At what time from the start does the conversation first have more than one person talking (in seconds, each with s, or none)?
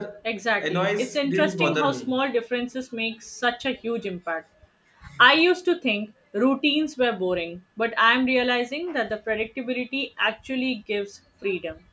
0.6 s